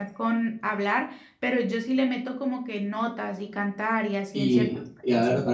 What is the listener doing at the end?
taking over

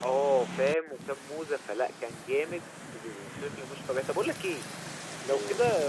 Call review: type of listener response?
listening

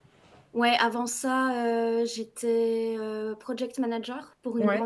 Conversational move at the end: listening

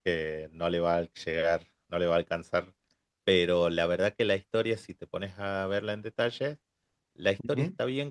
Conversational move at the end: listening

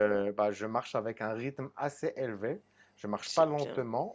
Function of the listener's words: listening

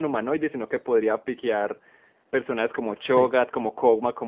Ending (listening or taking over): listening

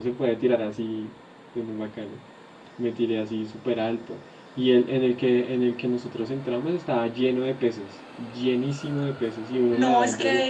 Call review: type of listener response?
taking over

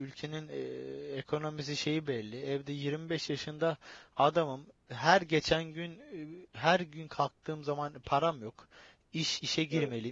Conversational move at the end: listening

